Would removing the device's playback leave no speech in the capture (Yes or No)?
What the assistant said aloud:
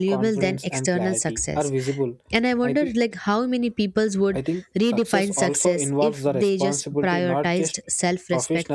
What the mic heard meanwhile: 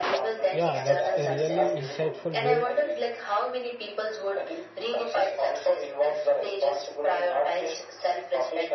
No